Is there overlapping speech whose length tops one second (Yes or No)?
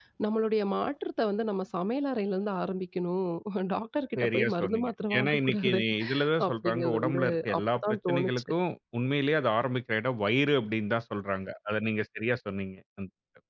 Yes